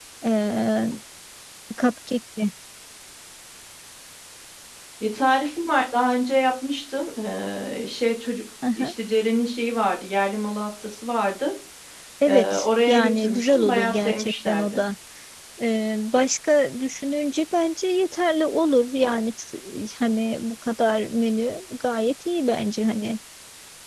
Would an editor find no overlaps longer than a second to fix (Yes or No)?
No